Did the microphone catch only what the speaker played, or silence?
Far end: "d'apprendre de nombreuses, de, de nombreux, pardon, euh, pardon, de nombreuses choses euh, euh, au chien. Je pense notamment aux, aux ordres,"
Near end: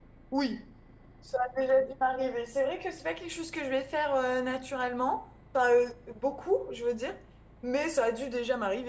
No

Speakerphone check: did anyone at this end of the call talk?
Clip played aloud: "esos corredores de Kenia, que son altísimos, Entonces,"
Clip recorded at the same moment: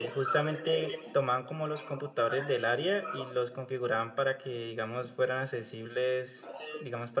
Yes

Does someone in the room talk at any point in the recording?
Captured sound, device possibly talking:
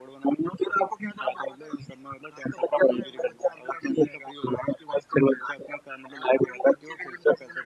No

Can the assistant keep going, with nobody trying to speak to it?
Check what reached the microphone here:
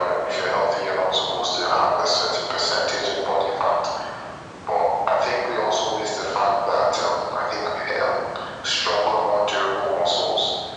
Yes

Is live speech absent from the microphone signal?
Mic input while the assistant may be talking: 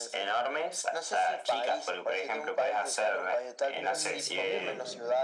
No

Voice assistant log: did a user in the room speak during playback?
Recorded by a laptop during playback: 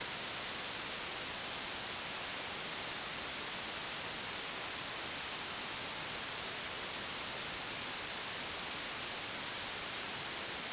No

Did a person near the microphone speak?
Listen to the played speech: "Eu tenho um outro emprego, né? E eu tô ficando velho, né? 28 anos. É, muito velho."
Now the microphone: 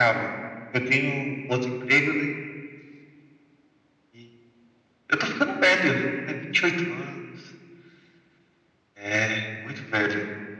No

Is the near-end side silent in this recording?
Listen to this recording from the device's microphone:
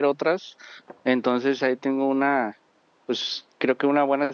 No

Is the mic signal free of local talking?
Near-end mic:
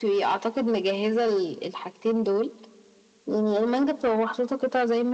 Yes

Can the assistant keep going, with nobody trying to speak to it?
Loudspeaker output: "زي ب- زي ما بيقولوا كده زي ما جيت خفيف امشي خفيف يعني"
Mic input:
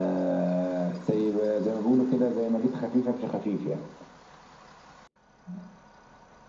Yes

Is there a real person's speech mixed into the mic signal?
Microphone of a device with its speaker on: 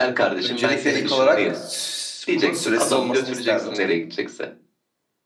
Yes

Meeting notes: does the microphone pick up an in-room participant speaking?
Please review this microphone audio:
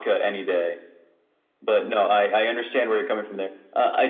No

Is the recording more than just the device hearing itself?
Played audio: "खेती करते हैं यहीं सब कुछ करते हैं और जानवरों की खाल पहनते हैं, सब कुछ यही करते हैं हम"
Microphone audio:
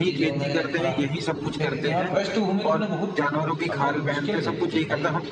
Yes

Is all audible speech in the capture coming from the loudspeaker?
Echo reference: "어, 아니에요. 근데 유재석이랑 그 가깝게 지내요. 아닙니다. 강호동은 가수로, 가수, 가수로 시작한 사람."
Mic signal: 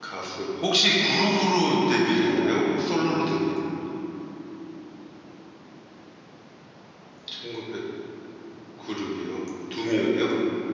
No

